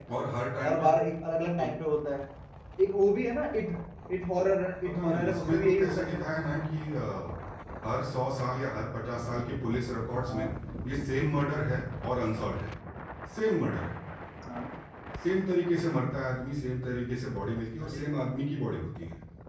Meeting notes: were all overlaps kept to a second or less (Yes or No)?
No